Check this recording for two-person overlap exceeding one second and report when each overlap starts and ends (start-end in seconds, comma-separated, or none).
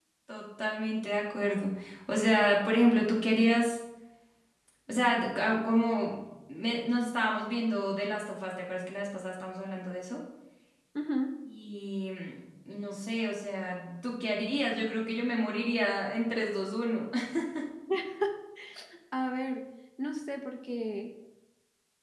none